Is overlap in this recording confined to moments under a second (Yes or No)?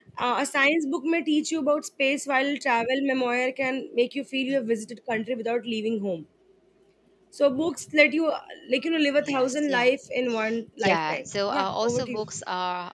No